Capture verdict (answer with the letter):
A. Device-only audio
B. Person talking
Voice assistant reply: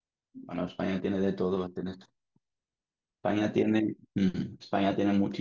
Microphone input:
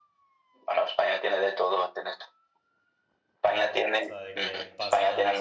B